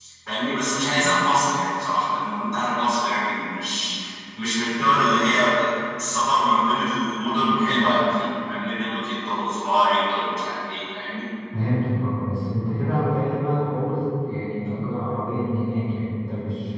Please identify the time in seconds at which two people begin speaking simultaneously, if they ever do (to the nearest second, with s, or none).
none